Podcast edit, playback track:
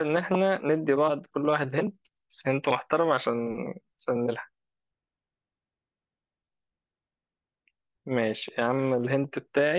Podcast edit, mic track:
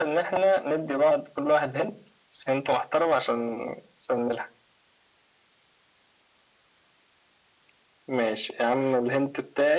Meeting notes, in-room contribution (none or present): none